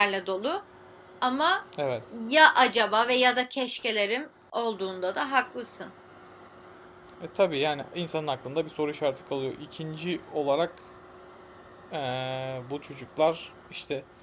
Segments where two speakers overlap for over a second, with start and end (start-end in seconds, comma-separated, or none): none